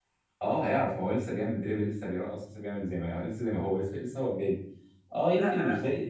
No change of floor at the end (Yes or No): Yes